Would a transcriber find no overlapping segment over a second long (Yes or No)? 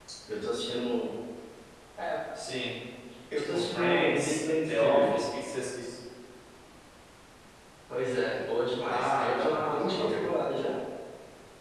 No